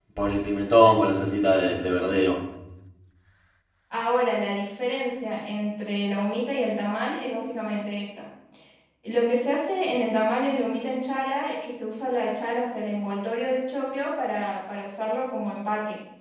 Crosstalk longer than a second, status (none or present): none